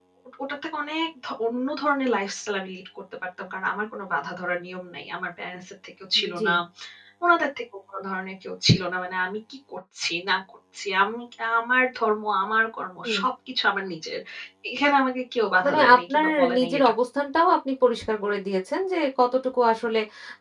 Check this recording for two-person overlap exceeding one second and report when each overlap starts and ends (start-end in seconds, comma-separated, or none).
15.7-16.9